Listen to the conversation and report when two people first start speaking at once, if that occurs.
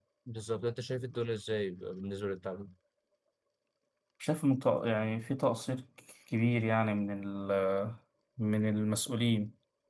none

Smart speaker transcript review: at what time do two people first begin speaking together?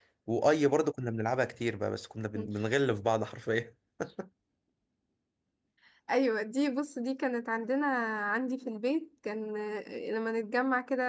none

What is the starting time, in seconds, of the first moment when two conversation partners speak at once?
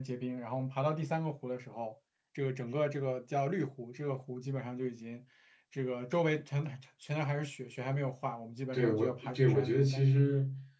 8.7 s

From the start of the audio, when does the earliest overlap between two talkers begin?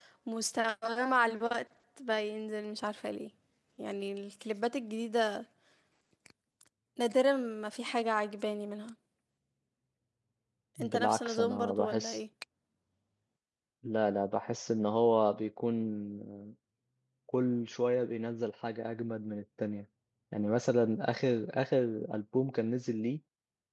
10.8 s

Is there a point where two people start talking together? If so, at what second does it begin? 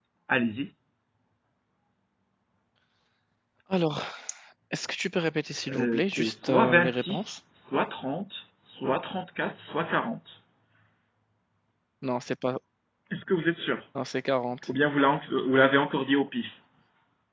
5.6 s

